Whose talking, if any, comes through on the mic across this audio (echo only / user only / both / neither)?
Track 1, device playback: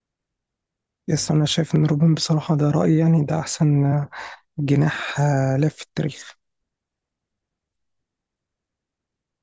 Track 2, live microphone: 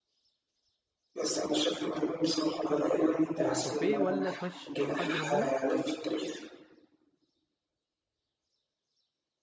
both